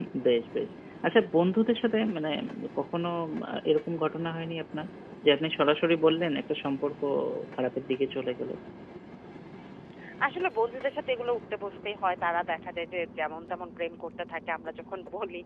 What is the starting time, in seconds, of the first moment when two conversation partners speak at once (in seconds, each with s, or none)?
none